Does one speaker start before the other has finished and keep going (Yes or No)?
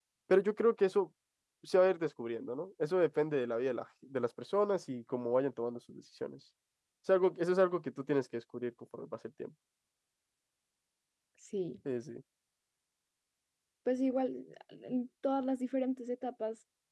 No